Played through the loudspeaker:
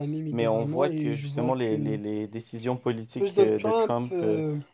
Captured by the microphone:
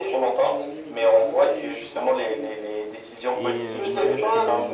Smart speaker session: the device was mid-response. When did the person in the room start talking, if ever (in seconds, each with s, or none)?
3.4 s